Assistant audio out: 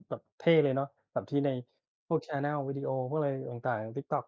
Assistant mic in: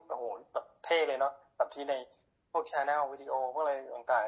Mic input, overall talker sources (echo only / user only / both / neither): echo only